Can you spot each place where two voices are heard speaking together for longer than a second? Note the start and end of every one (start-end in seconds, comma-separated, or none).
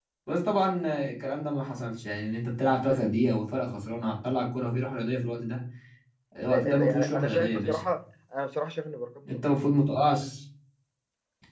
6.5-7.8